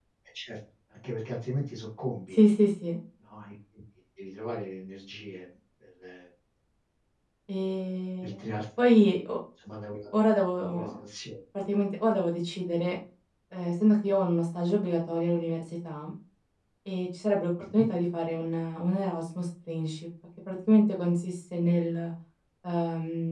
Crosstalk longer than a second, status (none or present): none